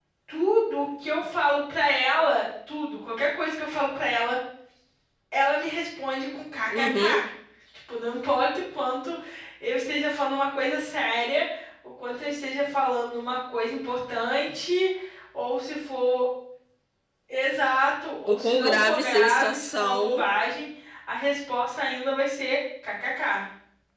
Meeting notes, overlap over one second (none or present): present